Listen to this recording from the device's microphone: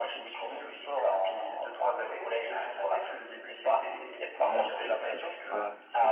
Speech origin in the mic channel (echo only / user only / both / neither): both